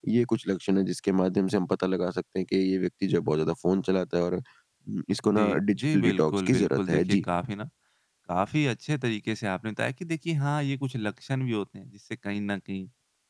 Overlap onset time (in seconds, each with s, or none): 5.3 s